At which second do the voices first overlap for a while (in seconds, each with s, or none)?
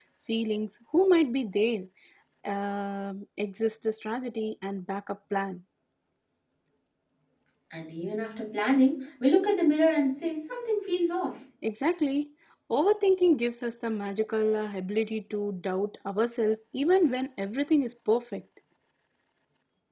none